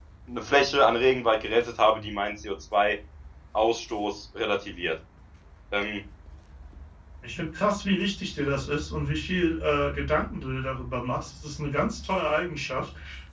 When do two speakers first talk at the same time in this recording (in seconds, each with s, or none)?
none